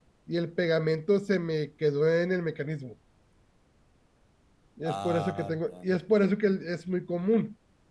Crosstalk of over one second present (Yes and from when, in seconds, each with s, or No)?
Yes, from 4.8 s